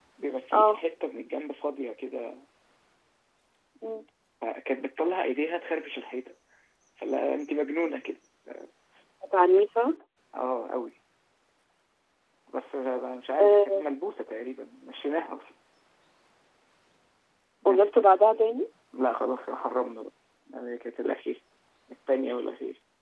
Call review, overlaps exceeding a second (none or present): none